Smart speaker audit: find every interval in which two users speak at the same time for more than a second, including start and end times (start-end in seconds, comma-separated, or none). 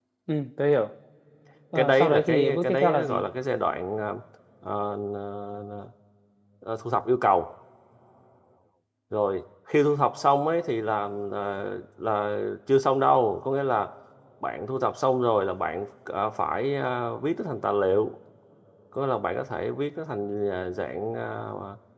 1.8-3.2